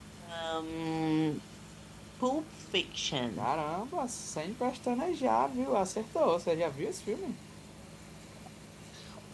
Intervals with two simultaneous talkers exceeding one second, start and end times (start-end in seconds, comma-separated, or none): none